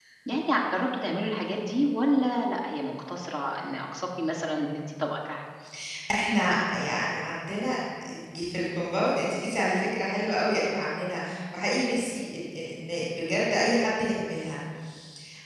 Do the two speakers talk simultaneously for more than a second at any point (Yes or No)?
No